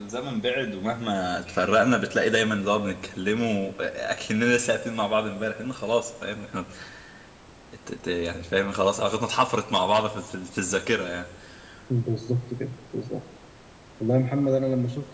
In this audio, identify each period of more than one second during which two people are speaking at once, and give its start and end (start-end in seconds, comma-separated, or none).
none